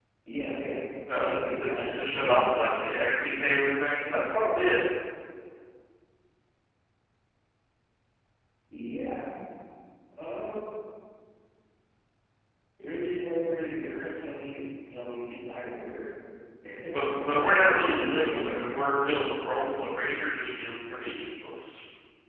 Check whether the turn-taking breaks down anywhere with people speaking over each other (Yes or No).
Yes